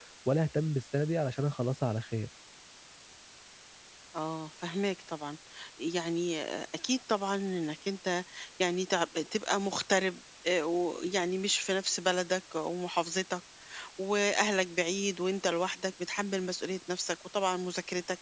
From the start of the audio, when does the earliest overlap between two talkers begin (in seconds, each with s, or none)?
none